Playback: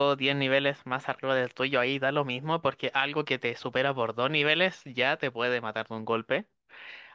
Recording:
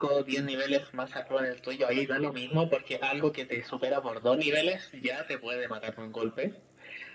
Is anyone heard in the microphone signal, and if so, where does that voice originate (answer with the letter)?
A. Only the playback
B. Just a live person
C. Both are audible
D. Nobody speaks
A